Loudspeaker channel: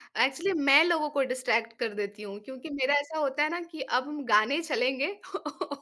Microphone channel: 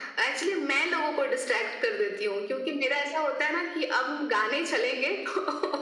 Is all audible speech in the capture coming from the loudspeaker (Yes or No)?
Yes